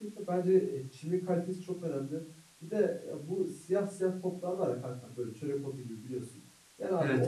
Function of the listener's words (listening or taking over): listening